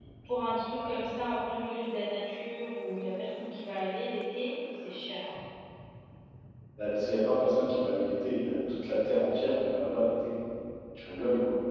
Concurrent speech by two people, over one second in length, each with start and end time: none

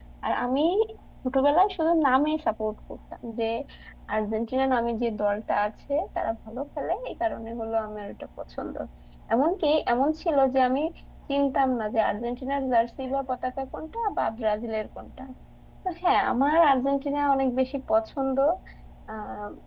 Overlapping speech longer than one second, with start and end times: none

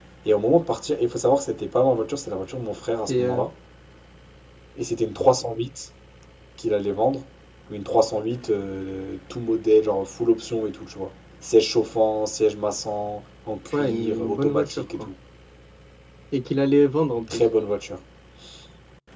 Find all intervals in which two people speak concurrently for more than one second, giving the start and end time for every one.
13.7-15.1

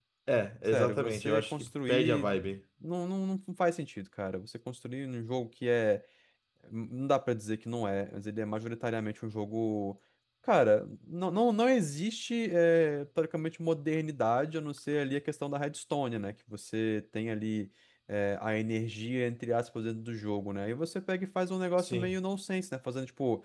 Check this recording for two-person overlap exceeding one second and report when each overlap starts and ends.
0.7-2.3

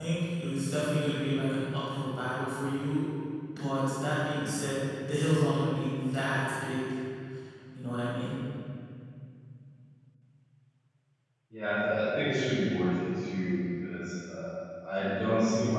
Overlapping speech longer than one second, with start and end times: none

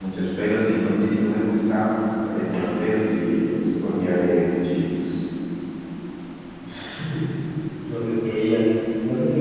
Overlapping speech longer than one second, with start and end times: none

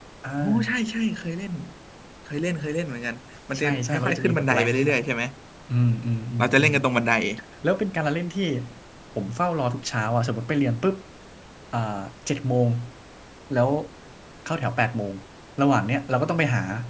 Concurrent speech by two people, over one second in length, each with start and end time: 3.6-5.0

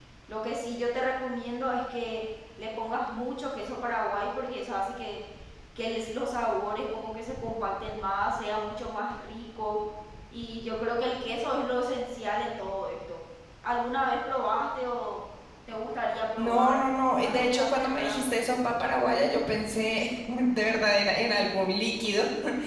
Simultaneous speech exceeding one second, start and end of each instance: 16.4-18.2

